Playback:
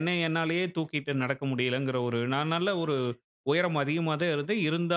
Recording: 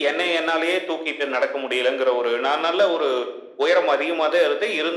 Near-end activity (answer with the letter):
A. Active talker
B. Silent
B